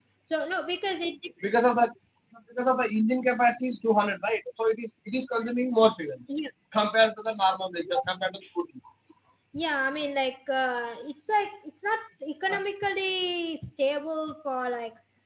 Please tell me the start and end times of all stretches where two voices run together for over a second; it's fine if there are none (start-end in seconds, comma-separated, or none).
none